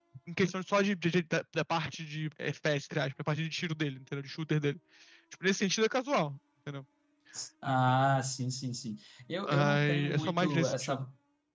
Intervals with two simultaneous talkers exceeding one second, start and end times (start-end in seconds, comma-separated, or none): 9.5-11.0